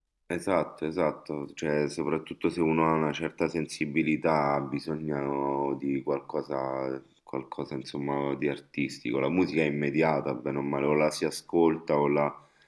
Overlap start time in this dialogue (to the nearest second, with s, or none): none